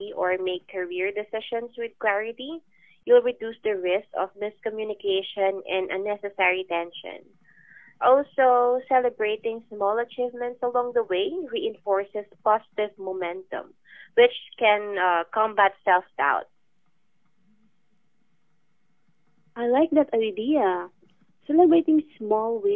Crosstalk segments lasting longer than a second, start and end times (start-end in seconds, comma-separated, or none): none